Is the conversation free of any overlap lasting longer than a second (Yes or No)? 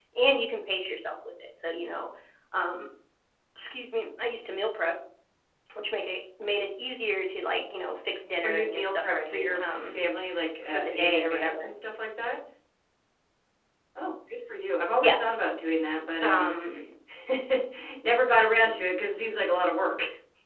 No